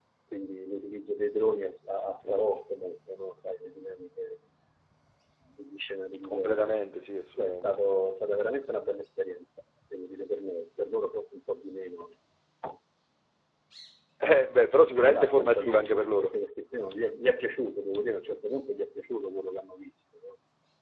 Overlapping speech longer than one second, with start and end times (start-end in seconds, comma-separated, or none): 15.1-16.3